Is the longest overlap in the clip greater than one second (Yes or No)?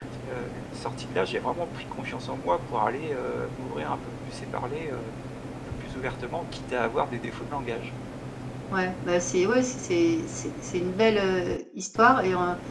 No